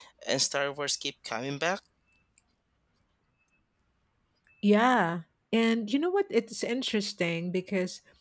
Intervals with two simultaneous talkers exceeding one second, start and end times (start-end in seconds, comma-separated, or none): none